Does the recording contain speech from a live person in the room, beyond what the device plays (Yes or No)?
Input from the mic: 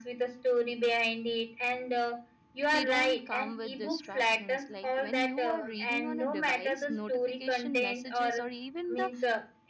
Yes